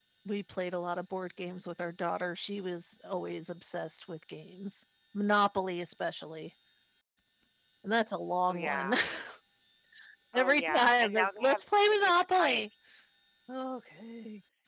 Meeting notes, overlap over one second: present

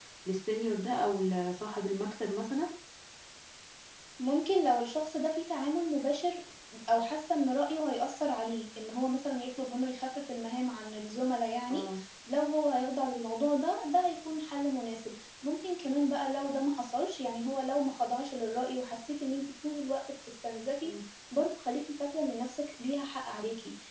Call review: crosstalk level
none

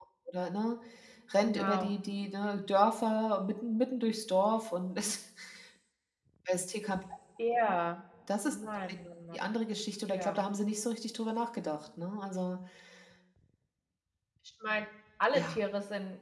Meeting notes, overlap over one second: none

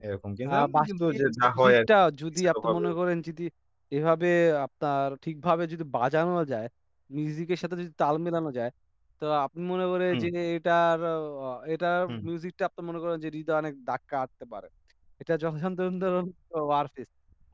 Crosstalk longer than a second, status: present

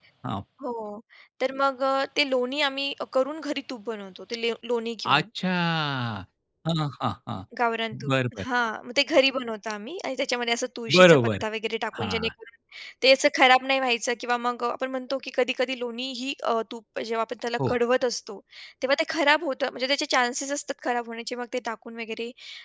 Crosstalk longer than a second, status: none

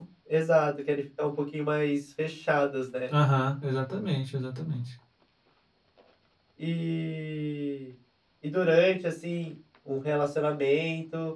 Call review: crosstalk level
none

